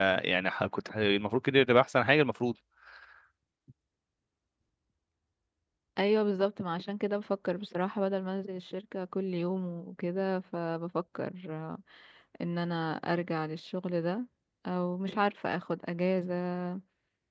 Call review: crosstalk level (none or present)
none